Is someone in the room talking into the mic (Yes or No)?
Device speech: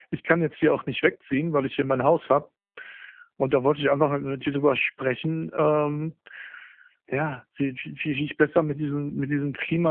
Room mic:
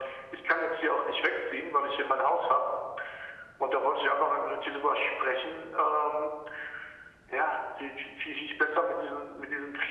No